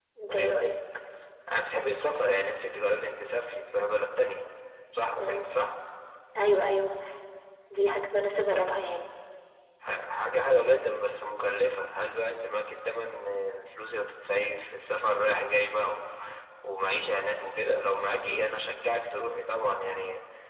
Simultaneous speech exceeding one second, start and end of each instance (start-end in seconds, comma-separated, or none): none